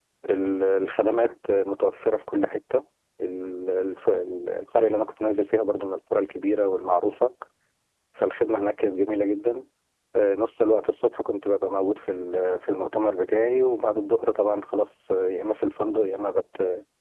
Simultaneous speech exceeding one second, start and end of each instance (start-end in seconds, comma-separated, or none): none